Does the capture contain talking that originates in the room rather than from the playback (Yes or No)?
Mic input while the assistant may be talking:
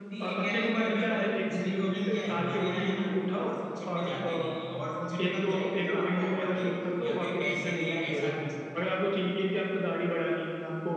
No